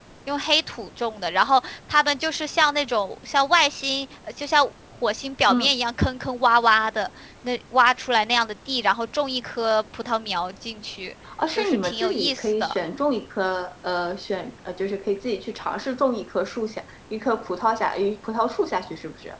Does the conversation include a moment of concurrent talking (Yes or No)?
Yes